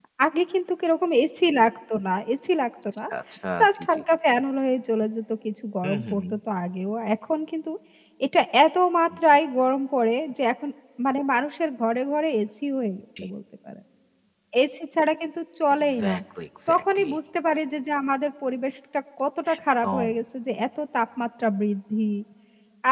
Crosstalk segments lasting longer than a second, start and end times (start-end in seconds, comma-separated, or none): none